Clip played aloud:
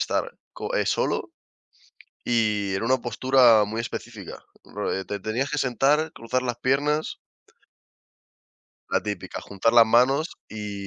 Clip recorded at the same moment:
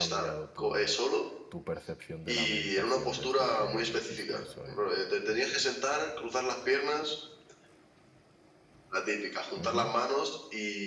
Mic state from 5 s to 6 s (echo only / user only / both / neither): both